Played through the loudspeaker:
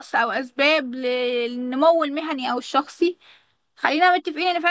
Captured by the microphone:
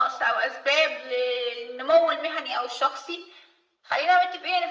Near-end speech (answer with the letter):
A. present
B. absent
B